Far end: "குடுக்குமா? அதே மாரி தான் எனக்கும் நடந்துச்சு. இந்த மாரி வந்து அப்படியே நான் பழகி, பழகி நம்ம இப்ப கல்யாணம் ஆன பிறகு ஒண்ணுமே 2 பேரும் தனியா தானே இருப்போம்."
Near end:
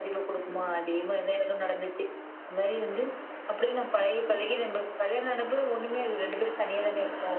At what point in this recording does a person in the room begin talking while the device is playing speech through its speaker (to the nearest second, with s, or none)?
none